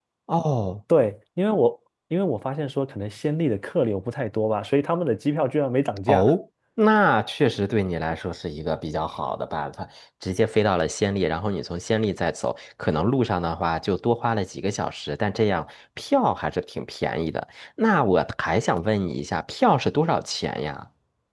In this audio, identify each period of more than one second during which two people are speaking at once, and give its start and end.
none

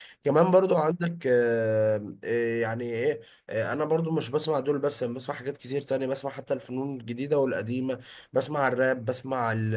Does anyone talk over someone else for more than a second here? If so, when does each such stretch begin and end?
none

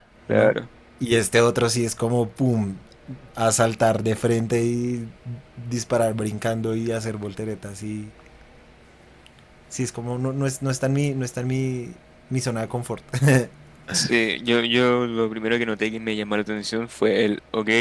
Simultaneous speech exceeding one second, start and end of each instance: none

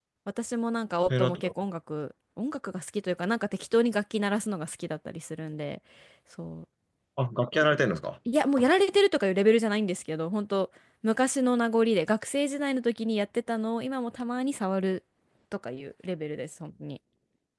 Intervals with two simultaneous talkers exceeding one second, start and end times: none

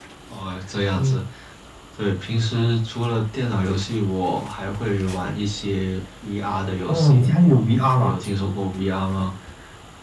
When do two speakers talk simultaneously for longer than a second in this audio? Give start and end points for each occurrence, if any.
none

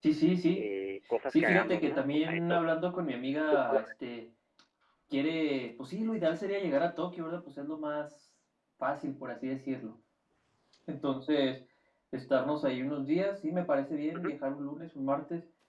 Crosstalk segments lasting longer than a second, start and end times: 1.3-2.6

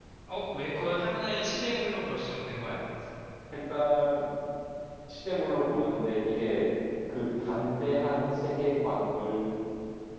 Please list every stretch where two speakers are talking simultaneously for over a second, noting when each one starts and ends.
none

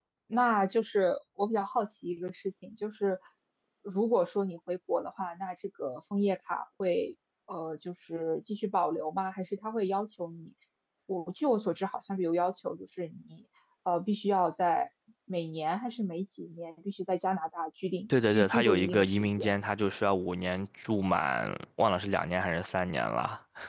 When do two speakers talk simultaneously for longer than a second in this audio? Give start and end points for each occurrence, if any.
18.3-19.5

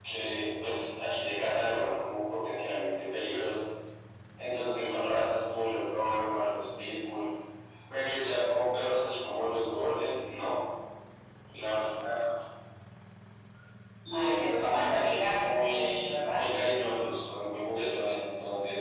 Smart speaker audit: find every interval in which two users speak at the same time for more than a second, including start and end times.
14.1-16.4

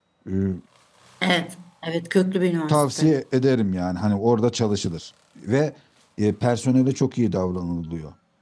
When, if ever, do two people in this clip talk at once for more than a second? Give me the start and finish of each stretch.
none

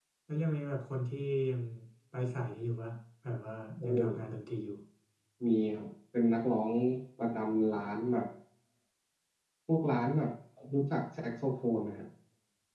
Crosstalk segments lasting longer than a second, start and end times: none

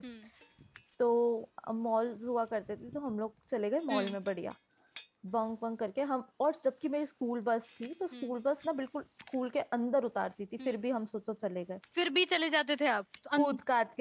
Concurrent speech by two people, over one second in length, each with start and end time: none

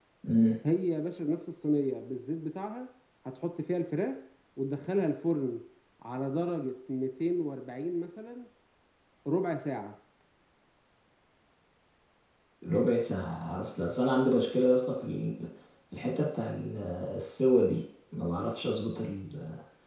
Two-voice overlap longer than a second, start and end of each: none

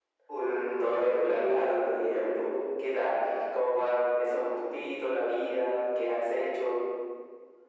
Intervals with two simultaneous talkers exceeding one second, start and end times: 0.8-2.6

